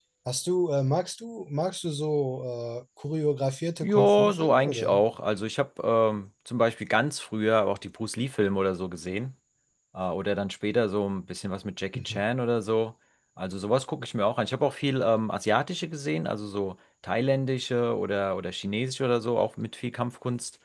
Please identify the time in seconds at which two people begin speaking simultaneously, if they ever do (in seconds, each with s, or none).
3.8 s